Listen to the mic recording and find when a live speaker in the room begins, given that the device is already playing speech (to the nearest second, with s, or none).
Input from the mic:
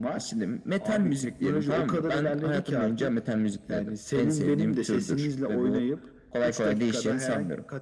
none